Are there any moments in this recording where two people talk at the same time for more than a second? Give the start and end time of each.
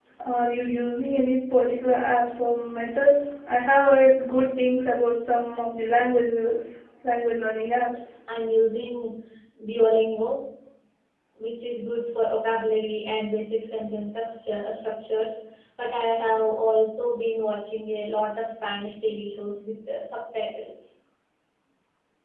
none

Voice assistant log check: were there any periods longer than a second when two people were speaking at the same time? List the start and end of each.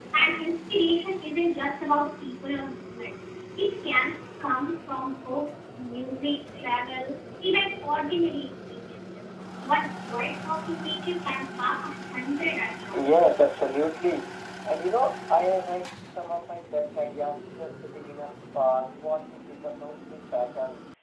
none

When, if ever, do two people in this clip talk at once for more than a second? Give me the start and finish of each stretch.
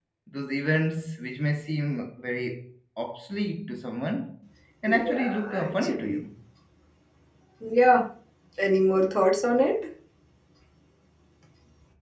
4.9-6.2

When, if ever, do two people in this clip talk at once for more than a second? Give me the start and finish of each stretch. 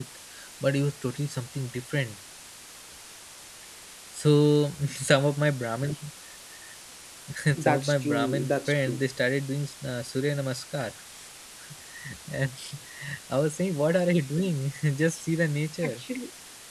7.6-9.0

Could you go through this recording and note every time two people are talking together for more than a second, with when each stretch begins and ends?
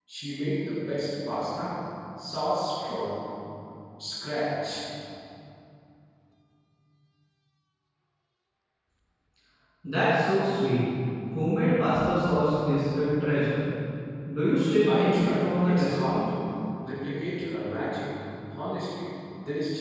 14.9-16.2

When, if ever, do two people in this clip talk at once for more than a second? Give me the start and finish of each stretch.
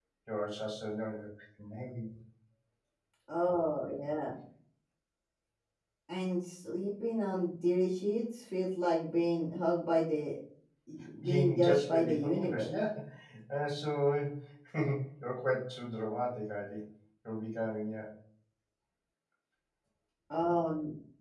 11.2-12.7

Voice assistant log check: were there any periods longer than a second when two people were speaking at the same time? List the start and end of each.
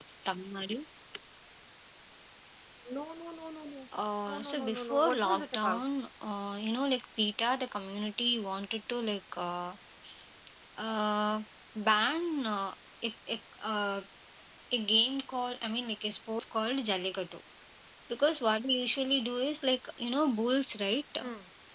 4.3-5.8

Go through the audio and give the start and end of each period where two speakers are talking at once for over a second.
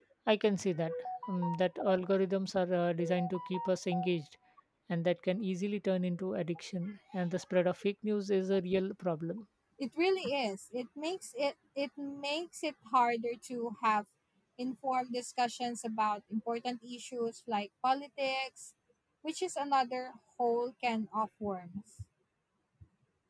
none

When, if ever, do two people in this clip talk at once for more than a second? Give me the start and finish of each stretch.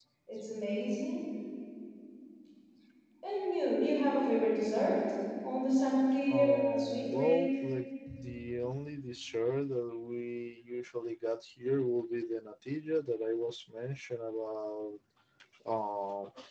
6.3-7.6

